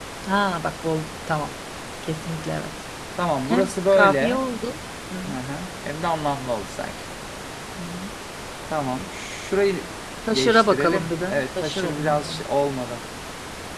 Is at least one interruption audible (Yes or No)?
Yes